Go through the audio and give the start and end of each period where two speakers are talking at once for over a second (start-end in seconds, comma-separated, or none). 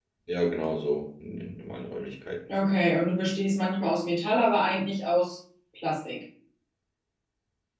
none